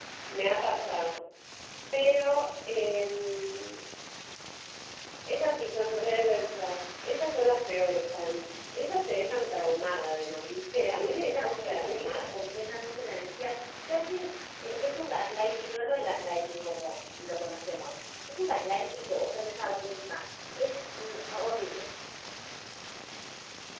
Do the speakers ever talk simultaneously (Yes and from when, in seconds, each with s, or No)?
Yes, from 10.7 s